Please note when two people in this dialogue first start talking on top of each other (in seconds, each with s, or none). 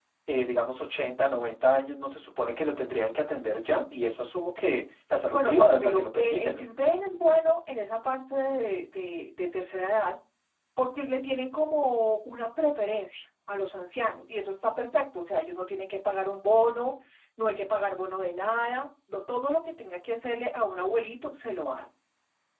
5.3 s